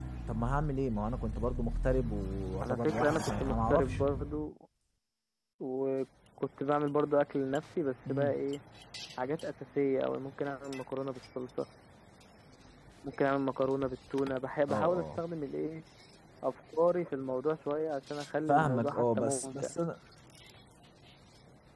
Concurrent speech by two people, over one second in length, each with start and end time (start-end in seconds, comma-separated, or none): 2.6-4.0, 18.5-19.7